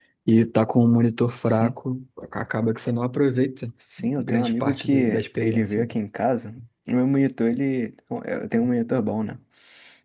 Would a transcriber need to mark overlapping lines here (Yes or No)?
Yes